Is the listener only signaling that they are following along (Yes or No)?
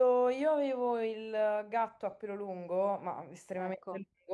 Yes